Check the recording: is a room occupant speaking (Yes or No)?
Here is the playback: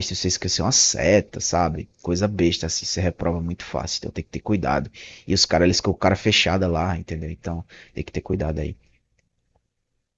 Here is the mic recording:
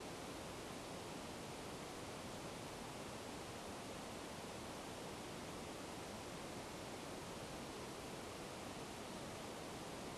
No